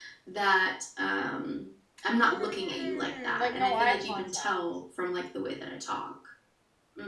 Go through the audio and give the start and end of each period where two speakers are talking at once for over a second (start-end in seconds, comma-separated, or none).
2.2-4.6